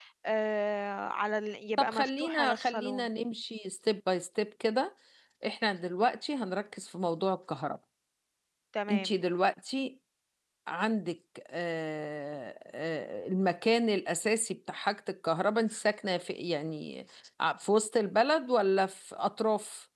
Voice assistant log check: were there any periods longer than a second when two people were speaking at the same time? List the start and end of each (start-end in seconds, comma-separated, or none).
1.8-3.1